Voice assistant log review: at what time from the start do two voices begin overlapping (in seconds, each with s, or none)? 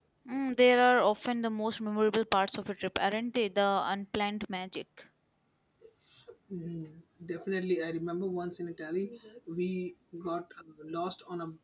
none